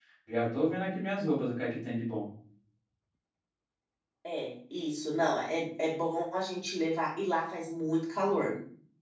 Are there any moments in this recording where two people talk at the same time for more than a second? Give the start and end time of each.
none

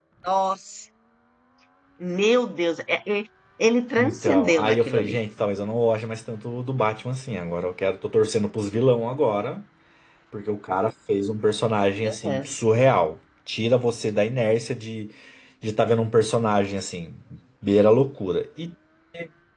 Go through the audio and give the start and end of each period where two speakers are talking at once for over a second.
4.0-5.2

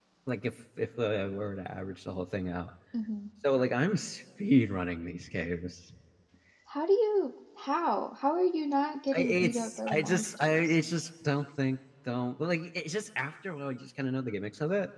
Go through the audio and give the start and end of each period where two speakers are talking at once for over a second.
9.1-10.8

